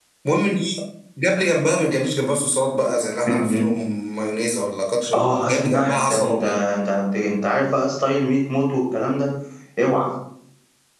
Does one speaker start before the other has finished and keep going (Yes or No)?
Yes